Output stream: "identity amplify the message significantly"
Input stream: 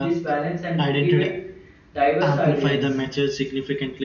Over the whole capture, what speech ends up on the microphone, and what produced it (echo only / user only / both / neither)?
both